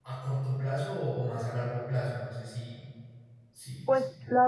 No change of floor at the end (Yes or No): No